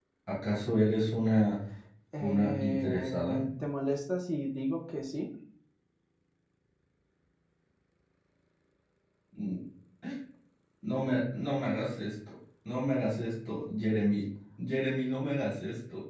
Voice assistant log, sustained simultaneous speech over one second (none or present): present